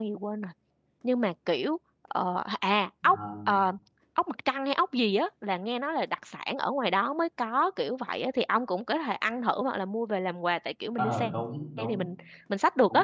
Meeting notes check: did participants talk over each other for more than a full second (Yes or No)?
No